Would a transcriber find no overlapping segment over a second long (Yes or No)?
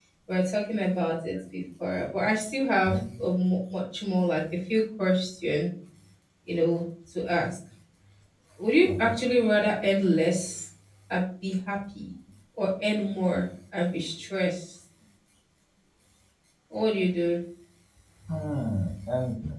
Yes